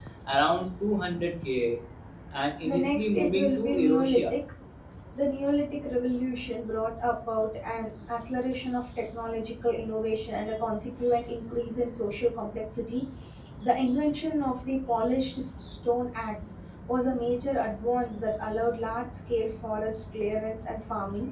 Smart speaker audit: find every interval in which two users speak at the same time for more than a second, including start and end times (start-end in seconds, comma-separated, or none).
2.6-4.3